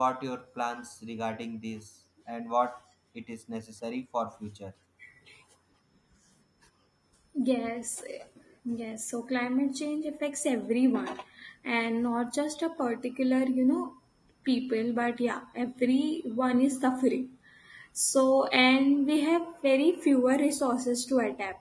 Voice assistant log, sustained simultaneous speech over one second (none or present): none